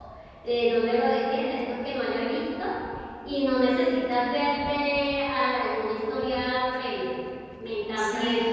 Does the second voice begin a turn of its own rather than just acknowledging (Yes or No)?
Yes